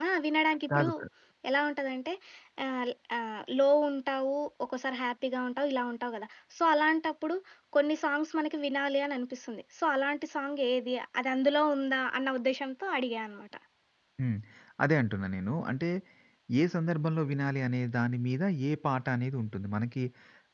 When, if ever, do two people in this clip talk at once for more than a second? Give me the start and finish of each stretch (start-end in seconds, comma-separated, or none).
none